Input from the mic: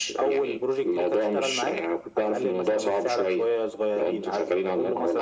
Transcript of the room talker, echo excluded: none

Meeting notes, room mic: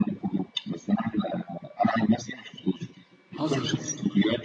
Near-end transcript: حصل

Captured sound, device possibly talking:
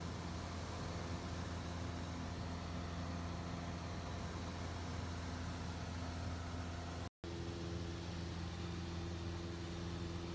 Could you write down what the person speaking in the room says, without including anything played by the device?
none

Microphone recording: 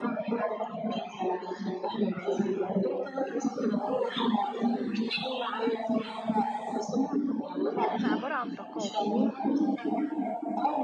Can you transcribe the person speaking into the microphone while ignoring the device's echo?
بص احنا عبارة عن طاقات

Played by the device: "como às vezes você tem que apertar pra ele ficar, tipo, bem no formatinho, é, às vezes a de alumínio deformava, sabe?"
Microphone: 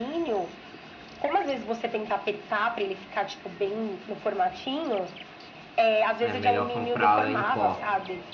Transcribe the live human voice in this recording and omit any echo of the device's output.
é melhor comprar em pó.

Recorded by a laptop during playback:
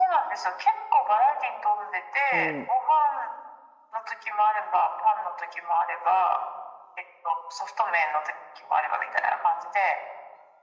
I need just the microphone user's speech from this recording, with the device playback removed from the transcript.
うん、

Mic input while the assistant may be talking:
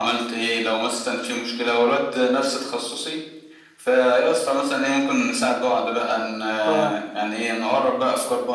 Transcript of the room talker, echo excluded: أه

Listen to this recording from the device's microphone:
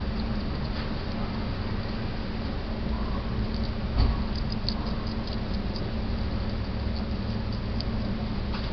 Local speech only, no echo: none

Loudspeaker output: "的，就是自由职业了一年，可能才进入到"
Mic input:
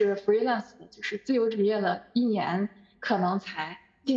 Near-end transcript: none

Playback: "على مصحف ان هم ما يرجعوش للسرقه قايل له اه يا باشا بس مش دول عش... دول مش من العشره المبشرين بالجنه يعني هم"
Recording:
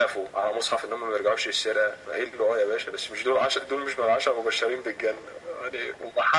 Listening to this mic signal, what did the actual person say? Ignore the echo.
none

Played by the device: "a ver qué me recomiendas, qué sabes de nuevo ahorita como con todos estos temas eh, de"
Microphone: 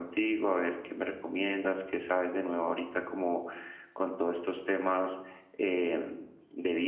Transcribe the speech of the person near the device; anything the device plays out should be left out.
none

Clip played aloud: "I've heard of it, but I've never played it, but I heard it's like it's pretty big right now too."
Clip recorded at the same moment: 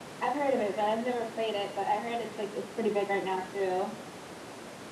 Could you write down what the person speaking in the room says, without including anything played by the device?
none

